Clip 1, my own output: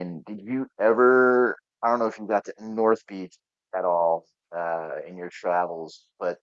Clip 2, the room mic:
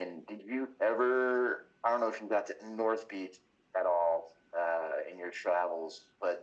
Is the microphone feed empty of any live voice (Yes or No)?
Yes